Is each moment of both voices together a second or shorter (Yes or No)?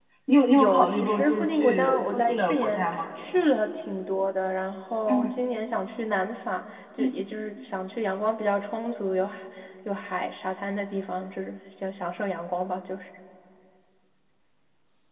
No